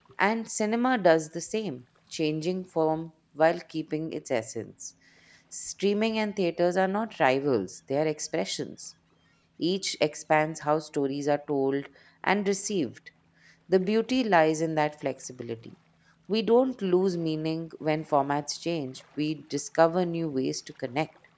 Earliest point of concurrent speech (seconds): none

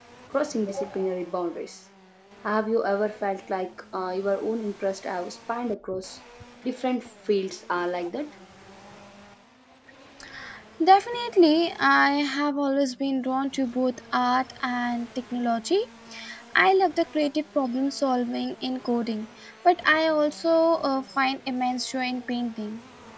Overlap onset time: none

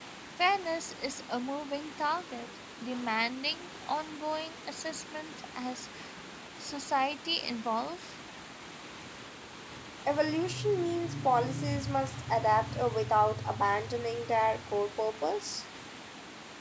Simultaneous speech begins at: none

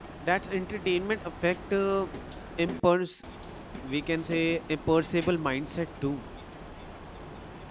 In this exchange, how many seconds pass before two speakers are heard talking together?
none

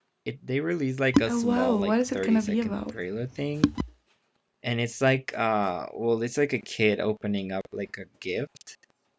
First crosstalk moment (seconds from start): 1.3 s

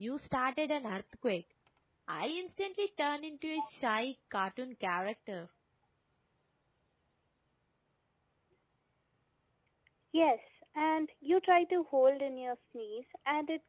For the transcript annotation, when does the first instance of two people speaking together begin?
none

